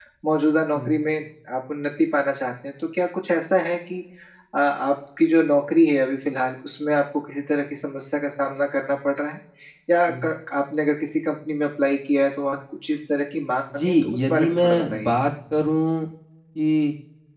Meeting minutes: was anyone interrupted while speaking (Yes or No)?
Yes